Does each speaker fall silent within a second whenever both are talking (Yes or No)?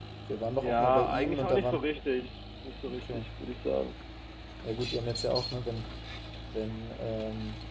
No